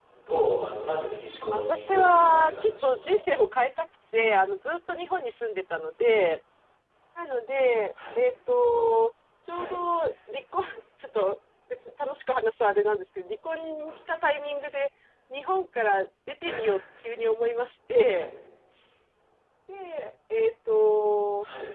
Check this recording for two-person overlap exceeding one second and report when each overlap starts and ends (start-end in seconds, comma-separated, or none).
1.5-3.1